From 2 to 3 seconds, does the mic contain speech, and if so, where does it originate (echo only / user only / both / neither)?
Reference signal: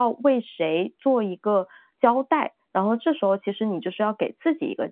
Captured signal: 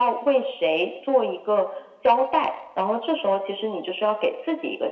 echo only